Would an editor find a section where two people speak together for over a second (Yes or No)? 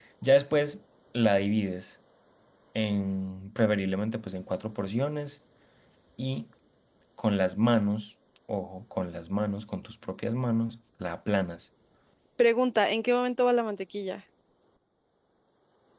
No